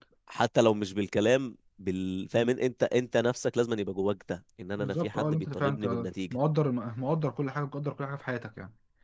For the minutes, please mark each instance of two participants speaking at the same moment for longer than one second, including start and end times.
4.8-6.4

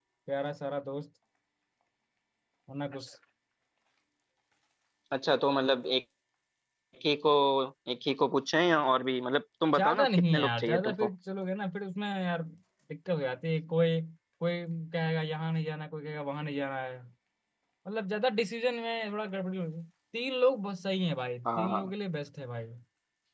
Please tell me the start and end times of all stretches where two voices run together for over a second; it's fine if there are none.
9.8-11.1

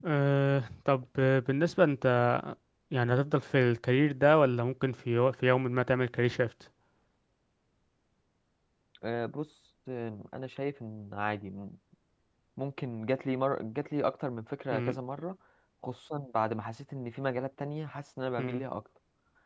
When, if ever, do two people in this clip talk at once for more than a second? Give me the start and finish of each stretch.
none

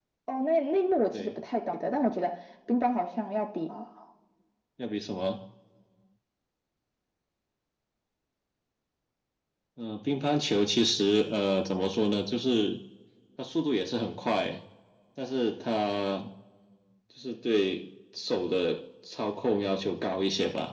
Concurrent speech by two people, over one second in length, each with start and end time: none

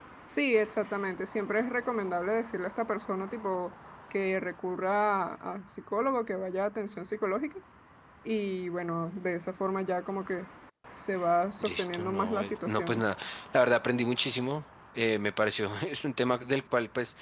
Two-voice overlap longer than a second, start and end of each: 11.6-13.0

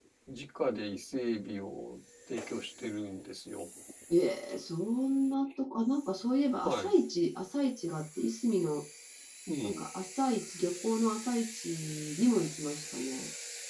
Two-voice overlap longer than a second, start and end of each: none

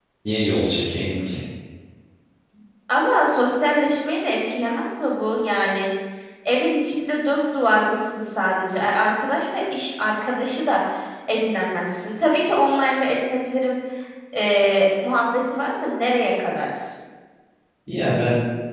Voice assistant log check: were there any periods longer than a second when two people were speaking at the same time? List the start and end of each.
none

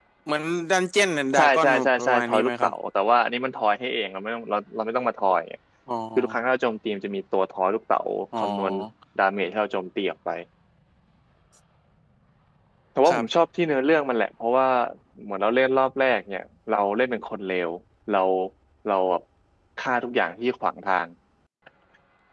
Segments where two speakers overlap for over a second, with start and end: 1.3-2.7

